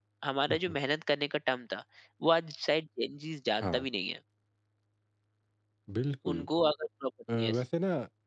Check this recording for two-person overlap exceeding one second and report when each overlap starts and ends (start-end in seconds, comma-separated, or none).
none